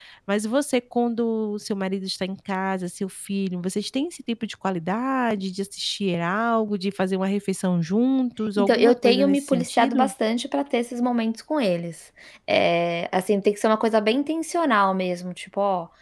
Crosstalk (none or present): present